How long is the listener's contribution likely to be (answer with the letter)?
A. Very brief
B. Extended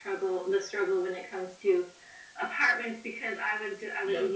A